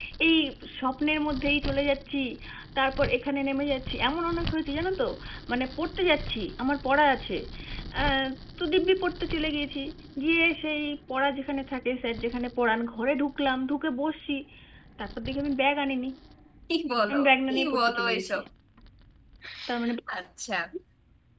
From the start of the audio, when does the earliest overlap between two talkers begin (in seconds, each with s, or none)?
17.1 s